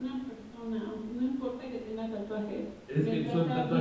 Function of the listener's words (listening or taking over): taking over